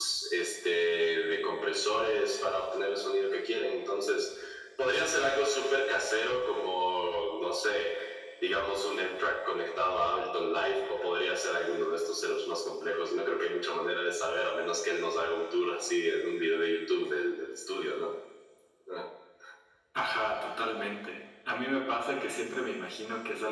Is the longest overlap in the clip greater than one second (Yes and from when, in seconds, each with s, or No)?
No